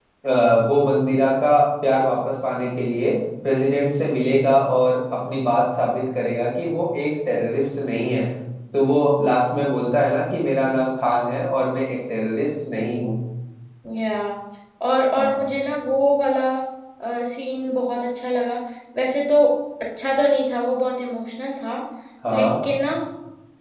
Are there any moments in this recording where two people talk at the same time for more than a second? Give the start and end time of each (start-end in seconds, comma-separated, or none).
none